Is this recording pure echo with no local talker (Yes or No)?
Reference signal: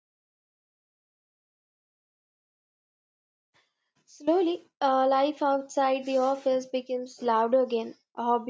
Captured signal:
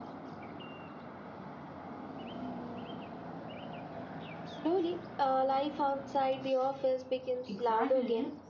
No